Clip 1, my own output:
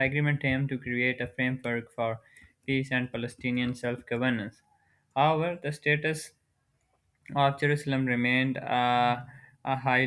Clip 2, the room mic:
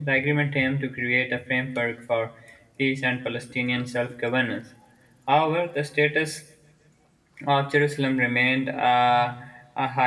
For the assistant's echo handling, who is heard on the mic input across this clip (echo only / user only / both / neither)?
echo only